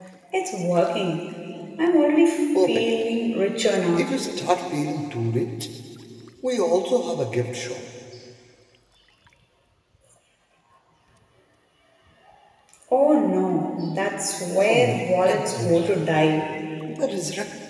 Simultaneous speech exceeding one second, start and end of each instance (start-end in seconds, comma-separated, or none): 14.6-16.0